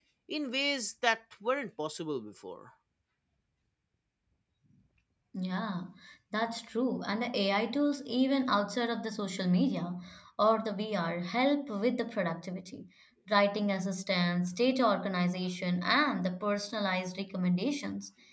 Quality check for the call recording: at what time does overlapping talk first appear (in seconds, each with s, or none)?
none